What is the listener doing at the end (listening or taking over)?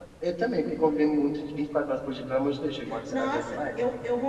taking over